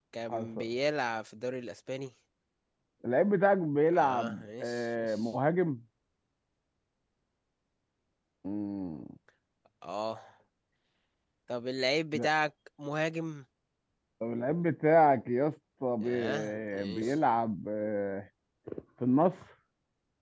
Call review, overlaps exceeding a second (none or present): present